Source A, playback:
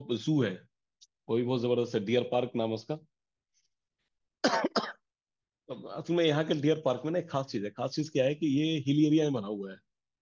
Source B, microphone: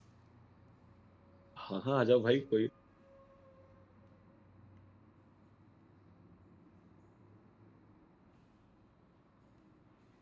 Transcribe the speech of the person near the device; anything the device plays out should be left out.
हाँ हाँ आ जाओ भाई कोई

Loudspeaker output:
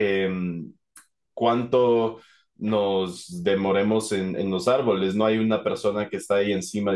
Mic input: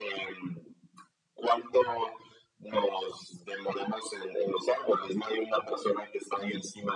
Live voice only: none

